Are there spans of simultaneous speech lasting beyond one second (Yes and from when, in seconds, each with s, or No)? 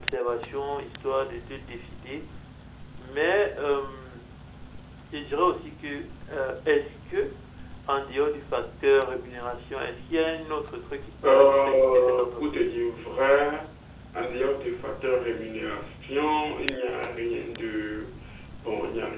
Yes, from 11.2 s